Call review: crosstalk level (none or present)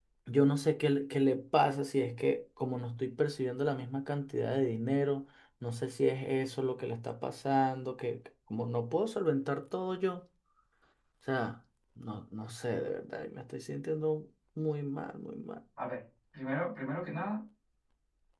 none